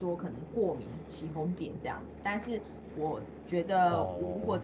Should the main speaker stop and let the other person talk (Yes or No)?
No